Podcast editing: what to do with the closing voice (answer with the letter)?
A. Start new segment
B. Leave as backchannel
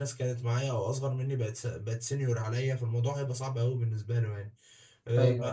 B